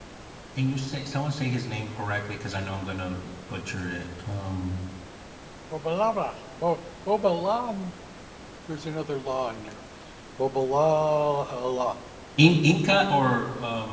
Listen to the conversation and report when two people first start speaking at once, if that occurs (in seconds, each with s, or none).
none